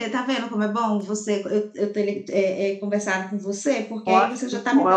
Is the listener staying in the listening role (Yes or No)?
Yes